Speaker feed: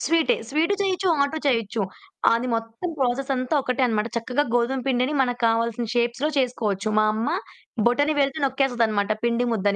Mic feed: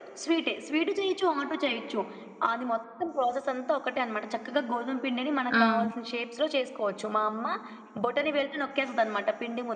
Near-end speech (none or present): present